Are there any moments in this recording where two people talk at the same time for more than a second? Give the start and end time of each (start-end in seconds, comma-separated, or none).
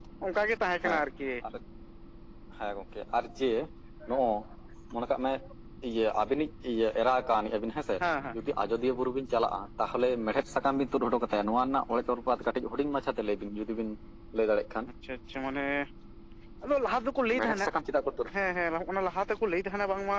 none